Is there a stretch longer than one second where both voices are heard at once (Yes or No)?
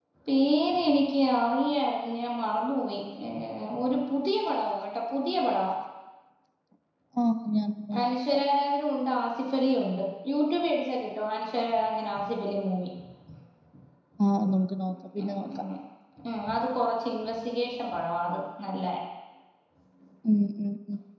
No